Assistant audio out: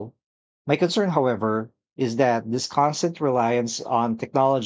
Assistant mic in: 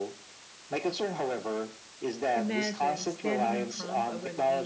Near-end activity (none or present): present